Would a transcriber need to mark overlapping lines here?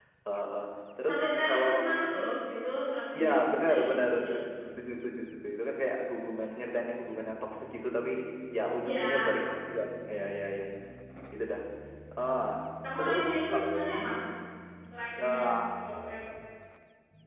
Yes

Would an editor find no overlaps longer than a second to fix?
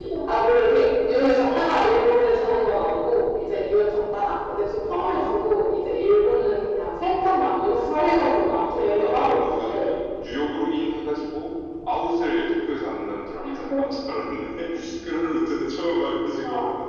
No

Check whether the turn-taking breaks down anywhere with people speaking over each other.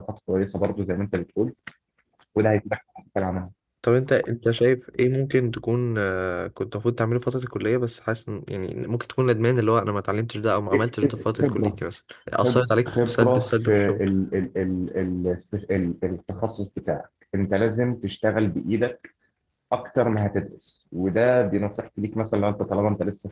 Yes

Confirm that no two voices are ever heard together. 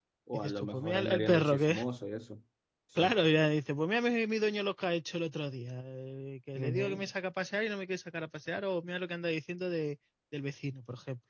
No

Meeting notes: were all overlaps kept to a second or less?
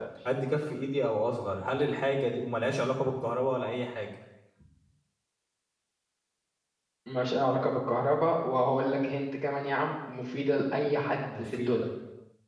Yes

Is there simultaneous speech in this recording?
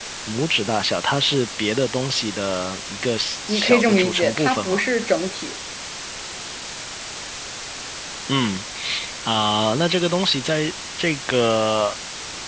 Yes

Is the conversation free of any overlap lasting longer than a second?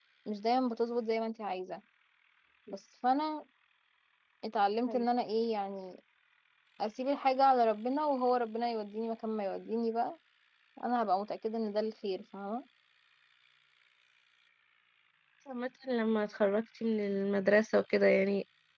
Yes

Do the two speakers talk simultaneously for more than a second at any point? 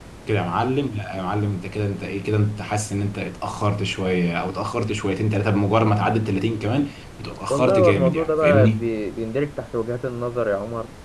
Yes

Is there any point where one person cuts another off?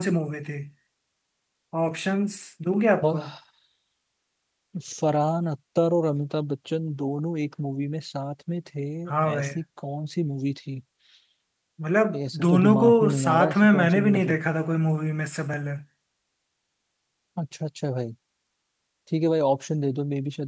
Yes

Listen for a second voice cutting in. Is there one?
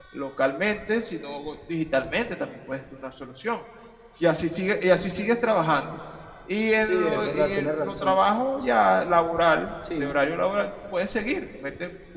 Yes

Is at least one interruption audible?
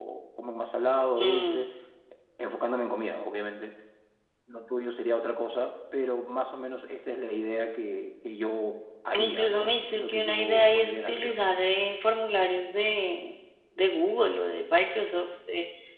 Yes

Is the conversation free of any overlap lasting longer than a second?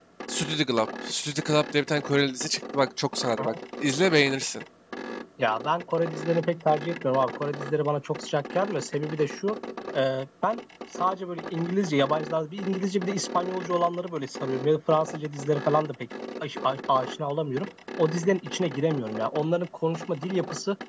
Yes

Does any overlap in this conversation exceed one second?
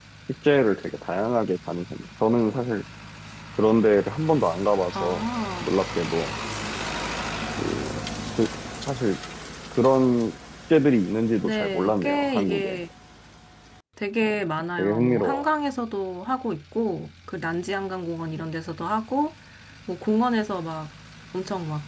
Yes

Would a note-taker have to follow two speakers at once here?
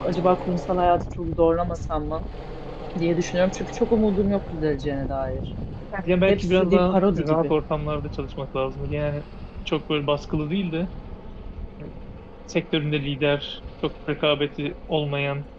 Yes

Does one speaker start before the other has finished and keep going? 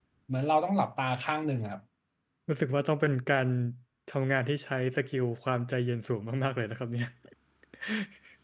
No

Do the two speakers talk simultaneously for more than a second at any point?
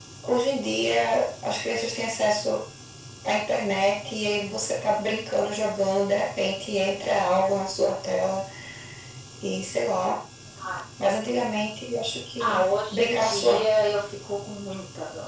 Yes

